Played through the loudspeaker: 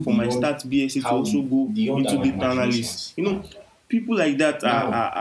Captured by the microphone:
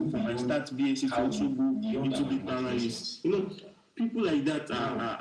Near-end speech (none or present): none